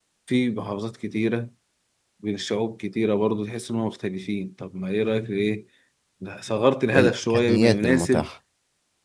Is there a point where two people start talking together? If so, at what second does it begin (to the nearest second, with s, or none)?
7 s